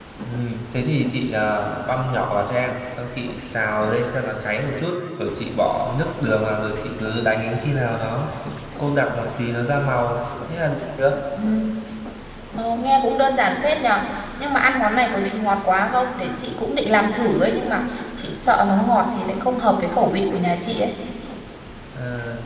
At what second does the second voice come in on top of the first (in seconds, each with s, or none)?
none